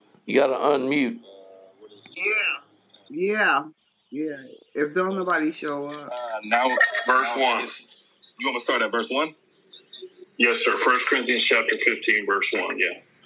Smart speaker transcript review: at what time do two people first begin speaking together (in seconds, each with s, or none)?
none